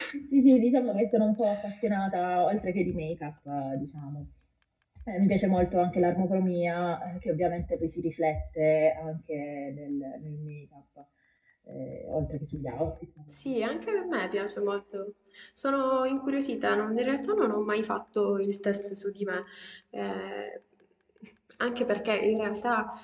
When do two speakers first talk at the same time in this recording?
none

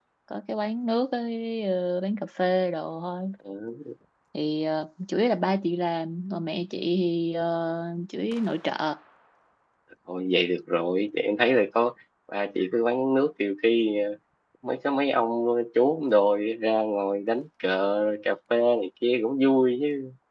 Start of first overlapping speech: none

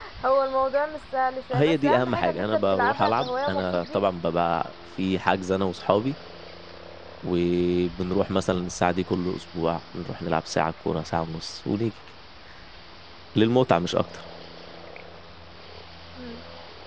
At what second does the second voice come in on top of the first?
1.5 s

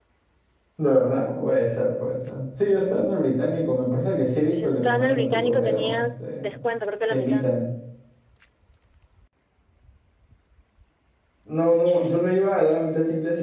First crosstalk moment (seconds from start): 4.4 s

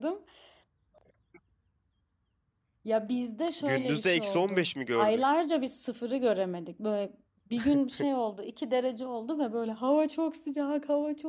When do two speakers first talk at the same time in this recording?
3.6 s

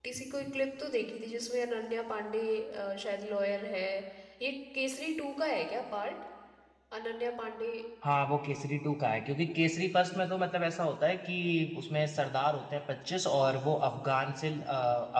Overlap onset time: none

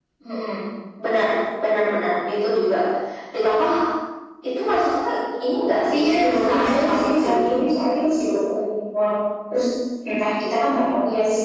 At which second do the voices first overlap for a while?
5.9 s

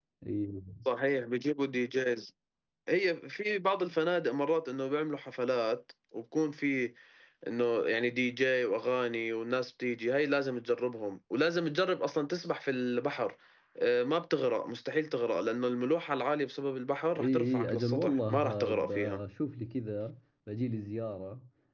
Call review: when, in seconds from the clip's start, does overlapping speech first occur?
17.1 s

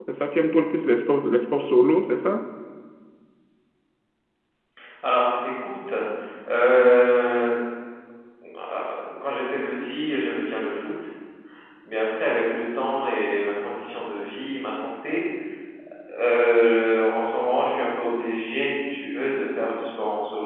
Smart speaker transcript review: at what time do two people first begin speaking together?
none

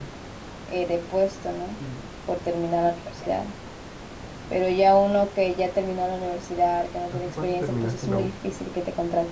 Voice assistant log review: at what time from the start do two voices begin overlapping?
7.1 s

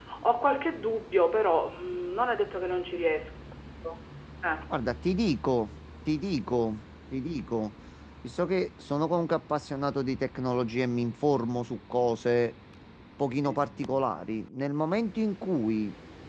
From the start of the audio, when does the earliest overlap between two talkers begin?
none

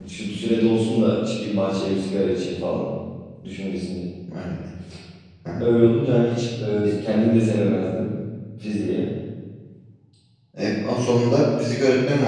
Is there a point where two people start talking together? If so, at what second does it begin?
none

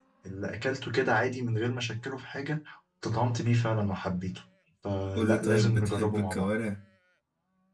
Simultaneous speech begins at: 5.2 s

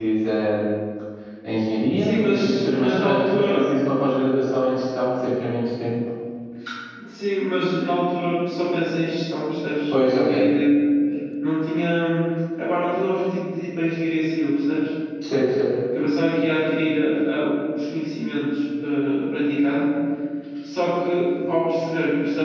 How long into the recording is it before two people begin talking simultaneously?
2.0 s

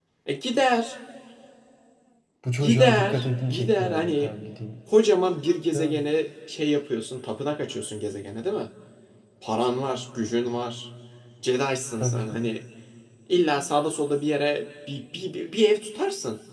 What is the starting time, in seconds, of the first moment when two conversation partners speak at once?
2.6 s

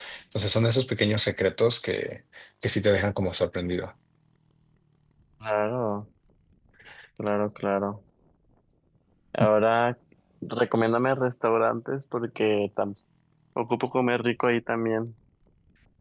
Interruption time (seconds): none

